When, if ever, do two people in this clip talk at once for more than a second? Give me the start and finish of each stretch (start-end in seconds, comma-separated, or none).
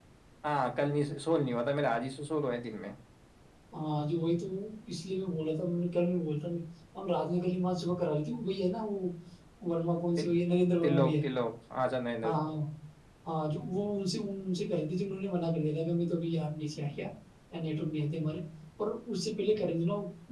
none